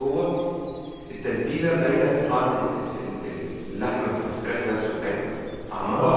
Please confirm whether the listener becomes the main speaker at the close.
Yes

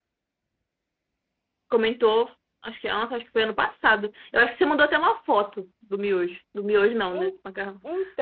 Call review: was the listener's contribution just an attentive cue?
No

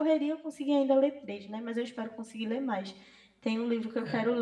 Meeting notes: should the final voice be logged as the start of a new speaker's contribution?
No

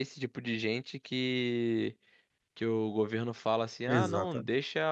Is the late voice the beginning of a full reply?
No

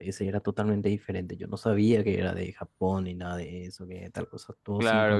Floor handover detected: Yes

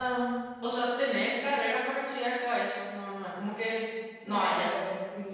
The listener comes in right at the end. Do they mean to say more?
Yes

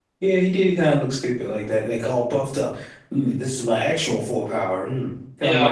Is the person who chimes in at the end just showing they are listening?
No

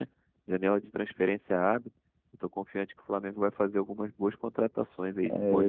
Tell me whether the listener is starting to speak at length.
Yes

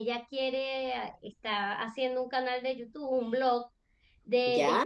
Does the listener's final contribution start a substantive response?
No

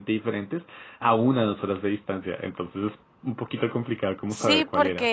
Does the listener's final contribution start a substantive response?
Yes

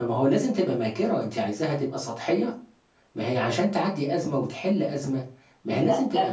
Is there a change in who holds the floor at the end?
Yes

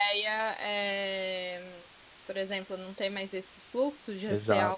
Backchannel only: No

